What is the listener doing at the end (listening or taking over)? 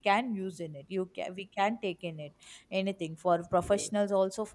listening